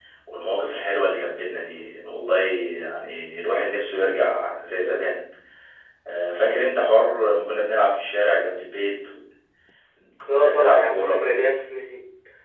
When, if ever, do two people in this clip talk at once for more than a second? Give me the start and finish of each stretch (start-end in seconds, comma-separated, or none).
10.3-11.5